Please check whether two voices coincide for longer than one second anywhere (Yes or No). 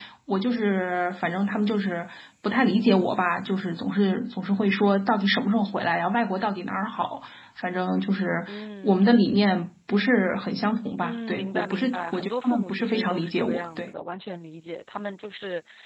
Yes